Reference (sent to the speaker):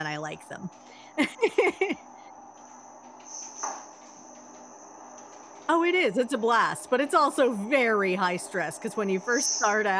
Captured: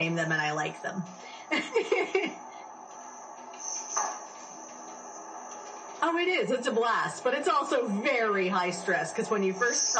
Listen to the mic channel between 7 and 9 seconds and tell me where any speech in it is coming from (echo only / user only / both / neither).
echo only